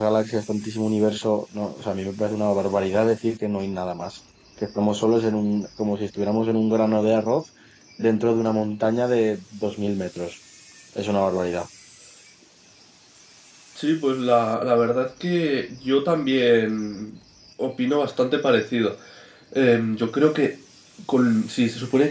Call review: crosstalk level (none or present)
none